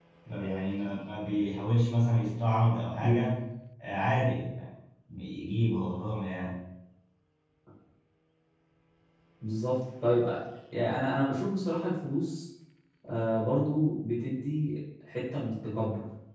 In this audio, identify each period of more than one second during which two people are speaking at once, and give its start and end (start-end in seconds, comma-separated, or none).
none